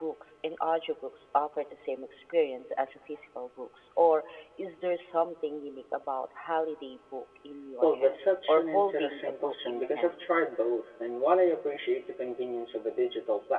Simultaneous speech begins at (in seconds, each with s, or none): 7.8 s